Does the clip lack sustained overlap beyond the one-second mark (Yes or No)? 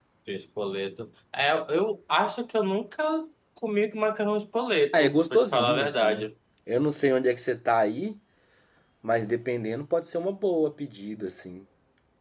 No